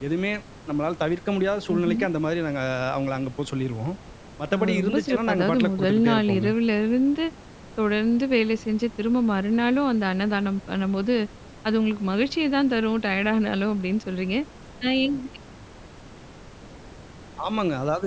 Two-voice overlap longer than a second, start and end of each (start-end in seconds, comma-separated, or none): 4.5-6.5